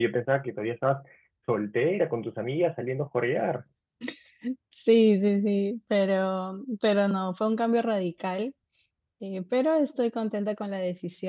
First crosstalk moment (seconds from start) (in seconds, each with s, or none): none